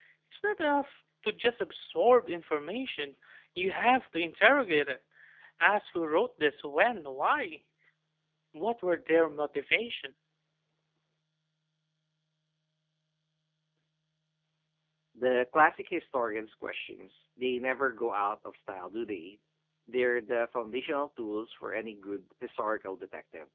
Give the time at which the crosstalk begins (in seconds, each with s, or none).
none